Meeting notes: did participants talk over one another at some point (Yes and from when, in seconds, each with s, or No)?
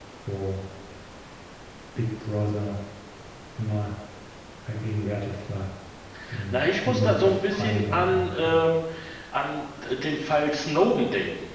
Yes, from 6.5 s